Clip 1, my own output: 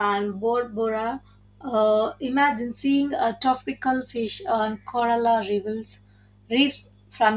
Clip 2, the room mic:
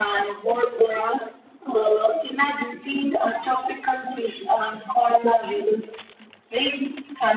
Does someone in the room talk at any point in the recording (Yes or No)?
No